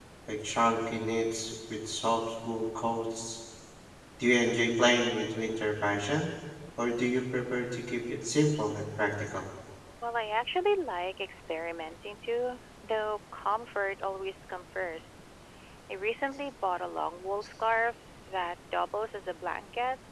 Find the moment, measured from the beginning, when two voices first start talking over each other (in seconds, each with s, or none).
none